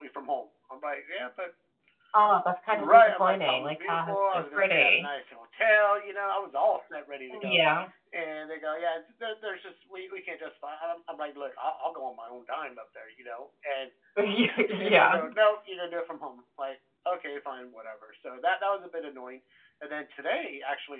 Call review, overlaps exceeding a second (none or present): present